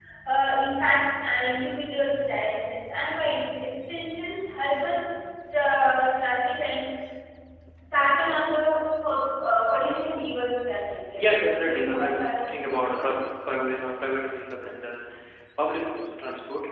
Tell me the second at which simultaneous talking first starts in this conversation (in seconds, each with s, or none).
11.6 s